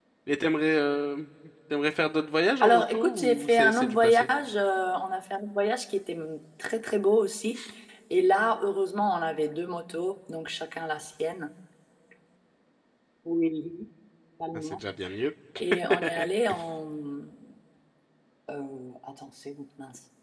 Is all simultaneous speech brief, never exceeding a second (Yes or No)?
No